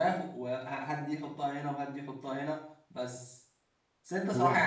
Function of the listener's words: listening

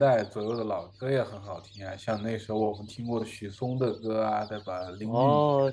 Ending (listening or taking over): taking over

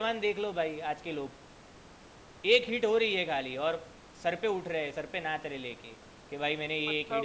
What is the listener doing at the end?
listening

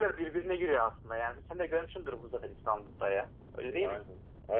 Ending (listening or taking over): taking over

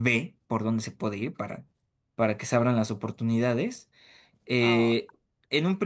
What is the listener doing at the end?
listening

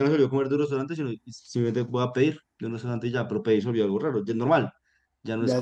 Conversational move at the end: taking over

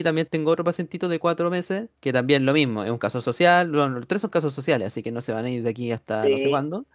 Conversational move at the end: taking over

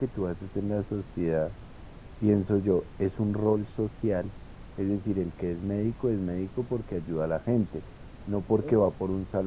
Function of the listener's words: listening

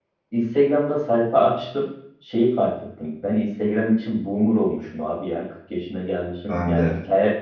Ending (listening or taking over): listening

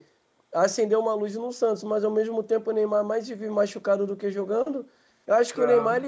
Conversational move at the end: listening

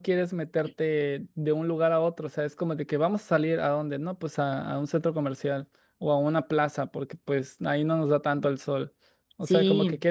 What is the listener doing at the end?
listening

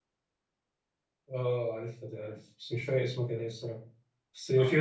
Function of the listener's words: listening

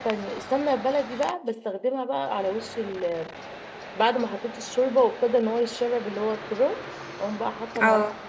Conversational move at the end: listening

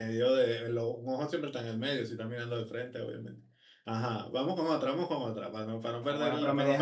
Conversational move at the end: taking over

